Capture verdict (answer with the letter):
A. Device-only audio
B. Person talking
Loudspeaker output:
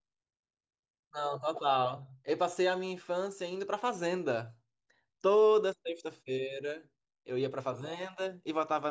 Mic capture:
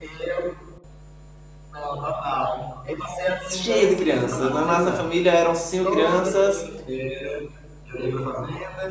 B